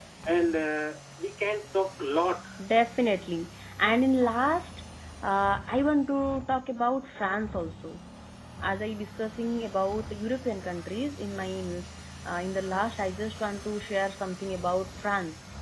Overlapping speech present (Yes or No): No